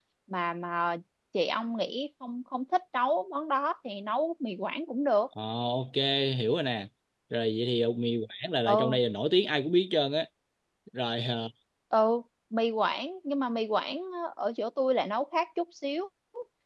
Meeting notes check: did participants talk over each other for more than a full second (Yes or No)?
No